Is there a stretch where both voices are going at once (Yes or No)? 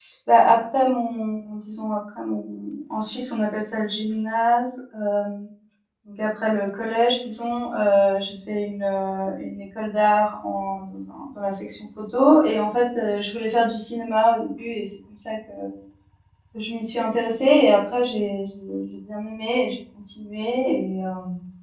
No